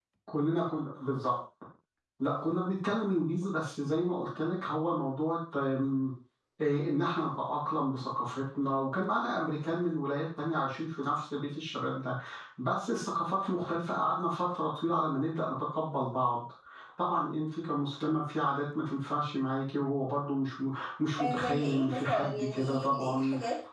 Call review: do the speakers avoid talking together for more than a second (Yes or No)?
No